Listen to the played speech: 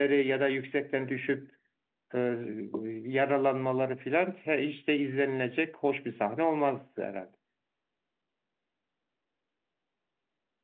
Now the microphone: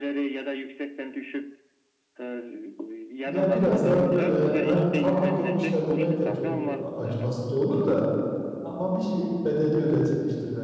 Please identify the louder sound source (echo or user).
user